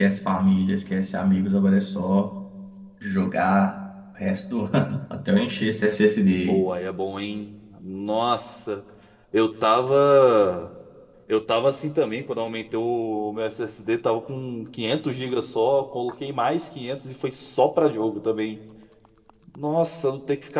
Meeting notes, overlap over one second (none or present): none